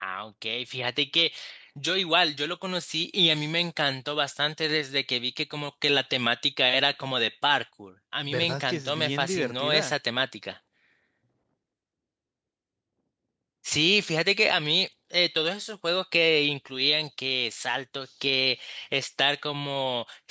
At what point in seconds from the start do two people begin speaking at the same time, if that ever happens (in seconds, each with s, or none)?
8.2 s